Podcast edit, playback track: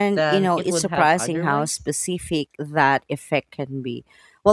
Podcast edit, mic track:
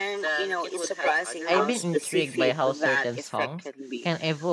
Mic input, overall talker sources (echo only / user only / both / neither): both